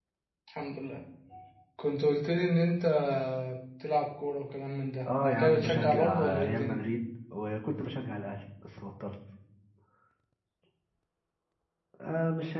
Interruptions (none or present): present